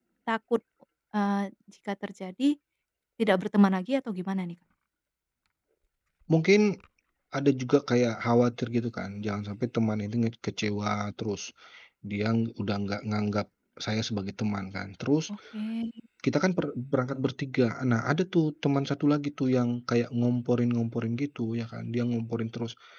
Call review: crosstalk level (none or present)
none